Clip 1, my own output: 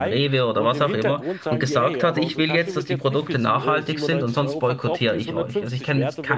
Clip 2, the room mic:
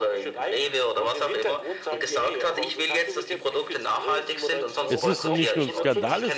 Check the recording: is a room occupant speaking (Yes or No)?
Yes